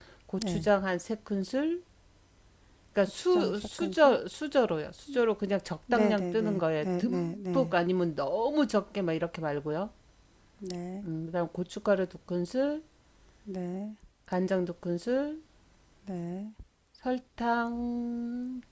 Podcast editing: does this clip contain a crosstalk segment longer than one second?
Yes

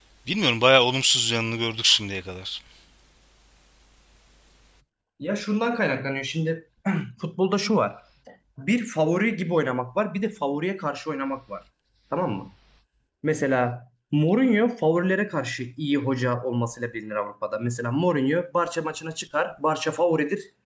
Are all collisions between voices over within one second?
Yes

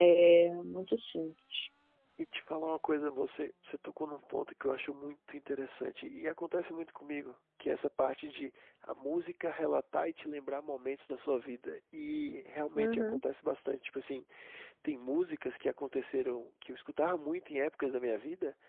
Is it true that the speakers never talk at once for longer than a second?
Yes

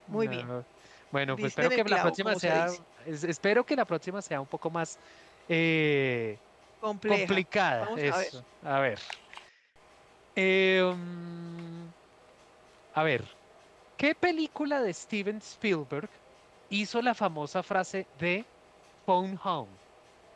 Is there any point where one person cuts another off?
Yes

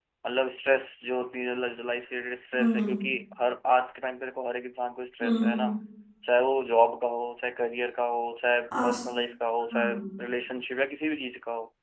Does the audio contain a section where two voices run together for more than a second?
No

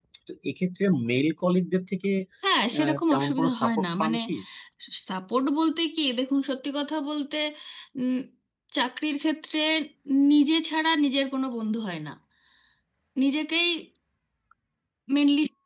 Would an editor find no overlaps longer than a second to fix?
No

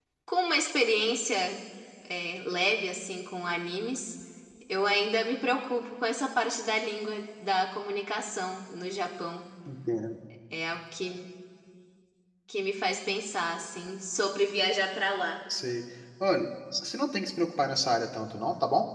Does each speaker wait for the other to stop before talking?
Yes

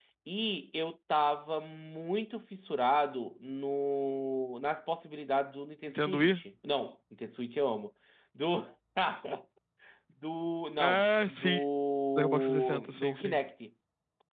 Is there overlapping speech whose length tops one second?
Yes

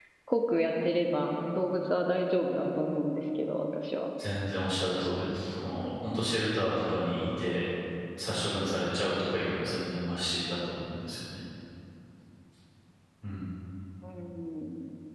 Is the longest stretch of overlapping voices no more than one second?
Yes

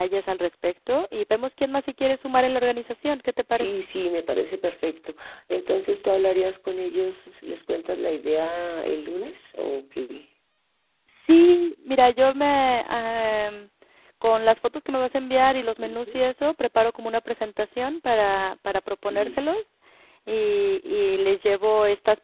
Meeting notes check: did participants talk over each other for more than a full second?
No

